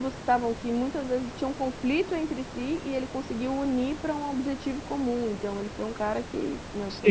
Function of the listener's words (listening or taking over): taking over